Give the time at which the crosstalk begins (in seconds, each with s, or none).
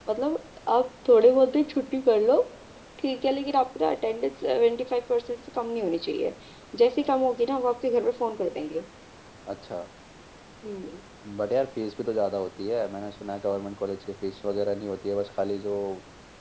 none